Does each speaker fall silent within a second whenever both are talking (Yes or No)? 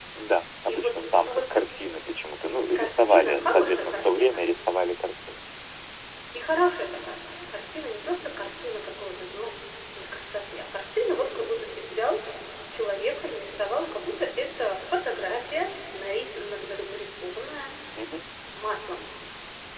No